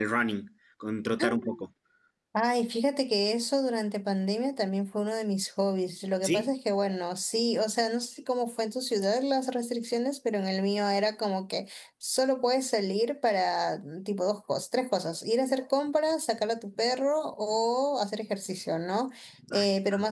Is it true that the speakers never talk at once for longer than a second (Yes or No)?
Yes